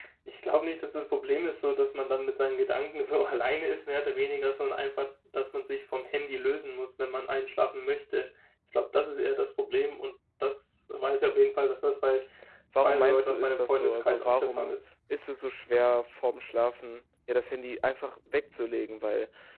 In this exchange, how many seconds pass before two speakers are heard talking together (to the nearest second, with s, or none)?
13 s